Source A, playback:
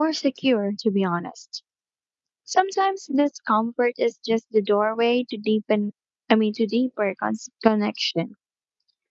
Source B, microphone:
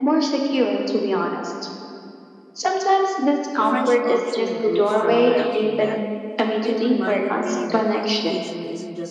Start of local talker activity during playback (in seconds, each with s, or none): 3.5 s